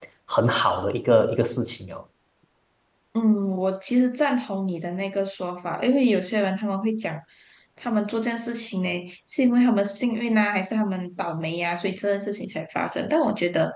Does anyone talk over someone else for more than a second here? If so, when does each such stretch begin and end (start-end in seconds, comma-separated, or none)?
none